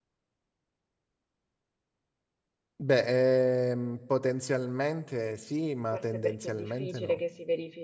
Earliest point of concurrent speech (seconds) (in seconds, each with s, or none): 5.9 s